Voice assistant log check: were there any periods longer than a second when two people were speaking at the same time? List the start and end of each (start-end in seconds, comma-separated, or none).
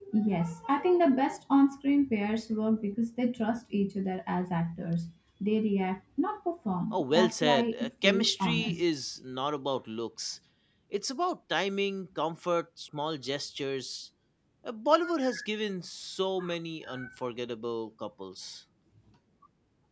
6.9-8.8